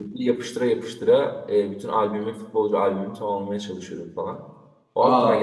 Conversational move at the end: taking over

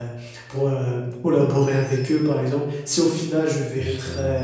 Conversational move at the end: listening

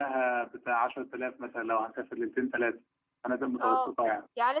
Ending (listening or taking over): taking over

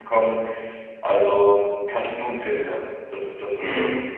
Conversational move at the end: taking over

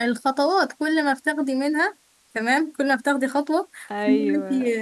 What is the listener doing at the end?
listening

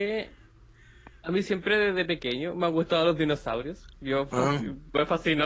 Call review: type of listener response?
listening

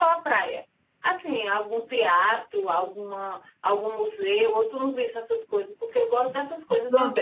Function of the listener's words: taking over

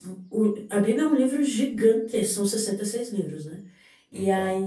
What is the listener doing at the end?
listening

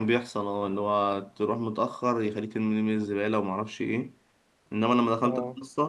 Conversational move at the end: listening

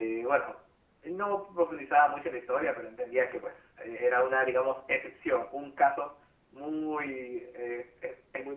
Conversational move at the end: listening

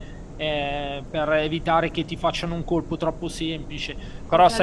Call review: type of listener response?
taking over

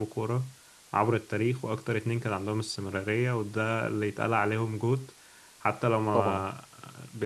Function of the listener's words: listening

